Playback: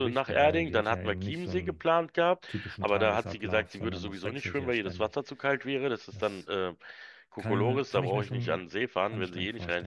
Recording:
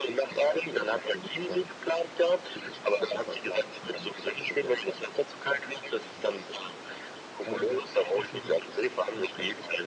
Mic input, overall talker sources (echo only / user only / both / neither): echo only